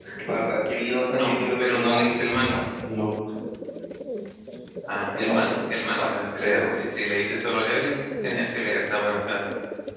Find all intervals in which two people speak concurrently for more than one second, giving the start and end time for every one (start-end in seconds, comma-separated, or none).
1.1-2.4